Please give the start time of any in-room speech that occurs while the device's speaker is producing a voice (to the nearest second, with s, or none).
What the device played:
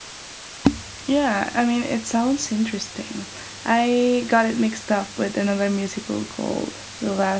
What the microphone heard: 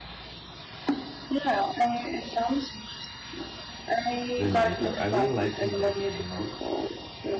4 s